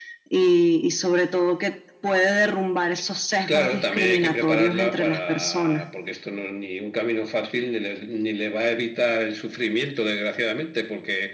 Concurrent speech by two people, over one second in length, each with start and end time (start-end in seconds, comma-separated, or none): 3.5-5.8